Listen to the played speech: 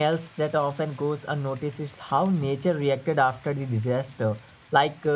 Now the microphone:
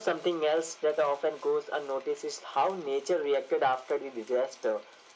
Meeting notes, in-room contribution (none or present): none